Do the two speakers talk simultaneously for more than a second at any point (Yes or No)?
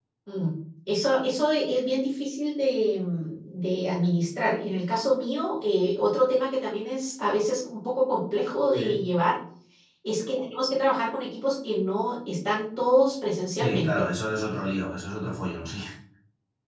No